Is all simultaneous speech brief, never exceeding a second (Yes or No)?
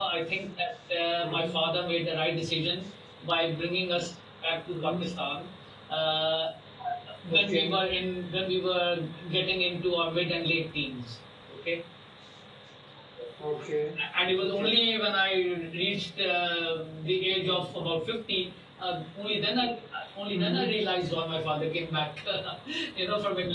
Yes